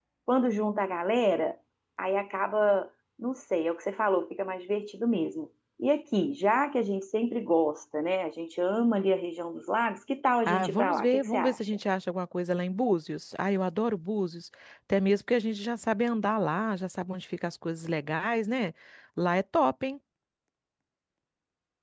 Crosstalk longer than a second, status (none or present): present